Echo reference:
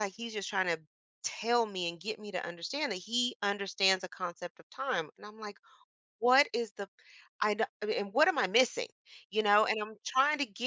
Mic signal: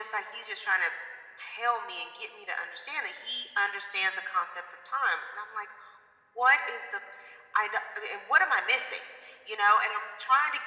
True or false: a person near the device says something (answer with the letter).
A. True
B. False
B